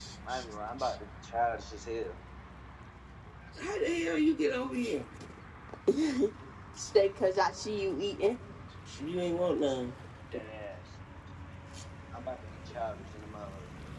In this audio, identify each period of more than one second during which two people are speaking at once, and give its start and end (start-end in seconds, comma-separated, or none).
none